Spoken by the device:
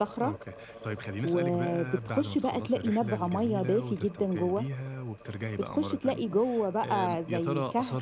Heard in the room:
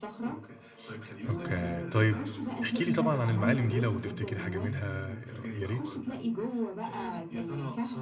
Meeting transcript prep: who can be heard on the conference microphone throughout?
both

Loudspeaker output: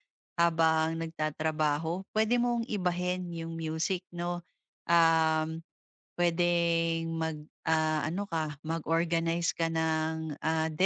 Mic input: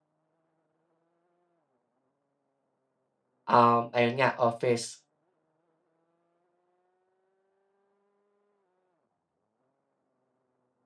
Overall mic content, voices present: user only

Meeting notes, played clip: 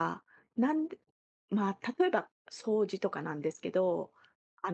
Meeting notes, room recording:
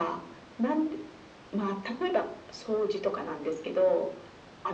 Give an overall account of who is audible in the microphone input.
echo only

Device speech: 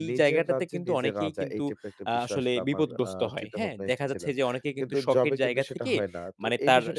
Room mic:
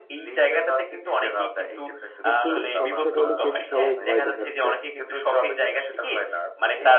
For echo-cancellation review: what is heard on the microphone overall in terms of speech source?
both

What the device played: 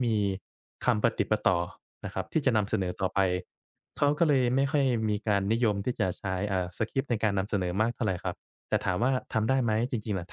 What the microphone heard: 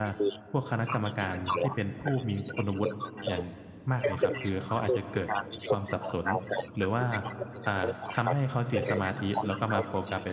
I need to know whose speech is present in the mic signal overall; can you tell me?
both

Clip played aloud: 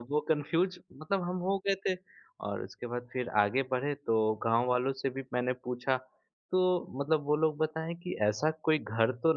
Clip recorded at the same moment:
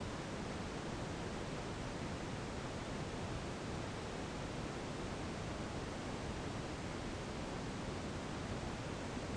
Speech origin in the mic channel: neither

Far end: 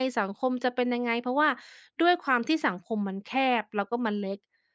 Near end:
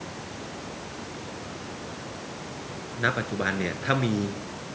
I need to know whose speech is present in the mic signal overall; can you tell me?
user only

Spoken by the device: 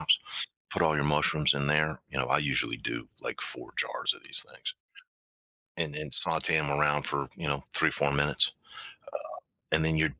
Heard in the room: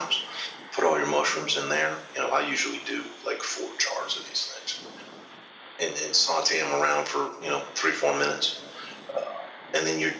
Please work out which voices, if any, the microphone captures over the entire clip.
echo only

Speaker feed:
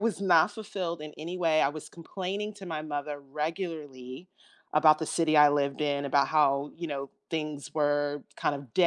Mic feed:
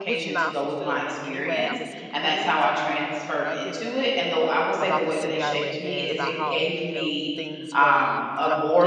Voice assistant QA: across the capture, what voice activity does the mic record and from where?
both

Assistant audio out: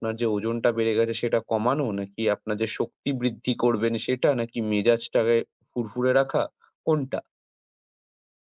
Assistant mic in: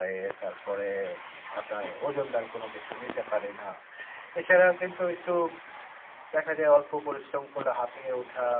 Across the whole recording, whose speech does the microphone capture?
user only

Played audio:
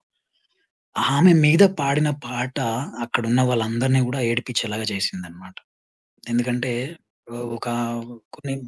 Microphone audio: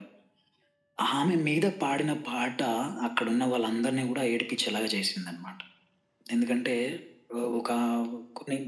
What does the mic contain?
echo only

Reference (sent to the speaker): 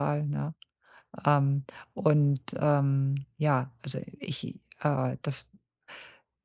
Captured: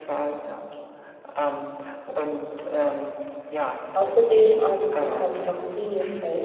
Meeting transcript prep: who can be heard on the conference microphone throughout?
both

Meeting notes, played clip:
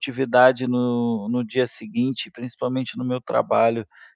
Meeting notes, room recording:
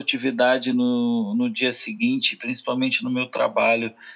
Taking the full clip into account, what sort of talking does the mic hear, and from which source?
echo only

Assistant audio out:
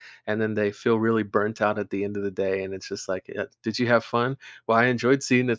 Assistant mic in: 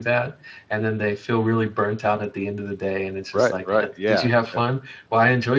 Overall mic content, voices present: both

